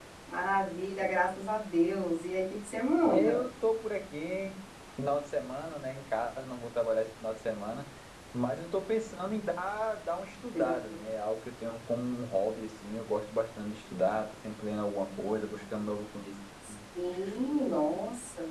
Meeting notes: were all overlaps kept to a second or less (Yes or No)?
Yes